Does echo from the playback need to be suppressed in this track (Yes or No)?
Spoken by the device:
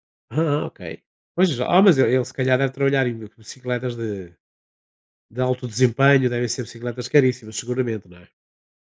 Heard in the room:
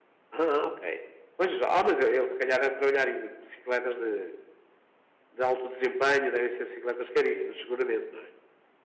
Yes